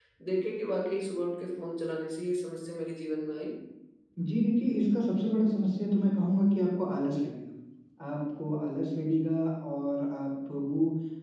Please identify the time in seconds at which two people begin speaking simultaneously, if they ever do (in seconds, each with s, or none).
none